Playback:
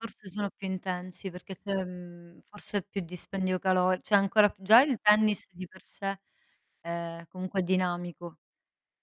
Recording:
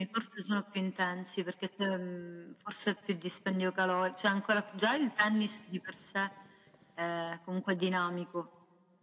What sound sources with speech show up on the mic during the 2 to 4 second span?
echo only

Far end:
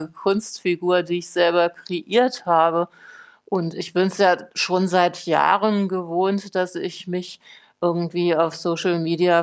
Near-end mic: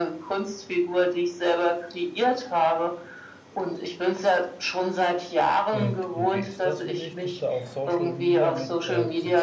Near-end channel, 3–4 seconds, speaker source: echo only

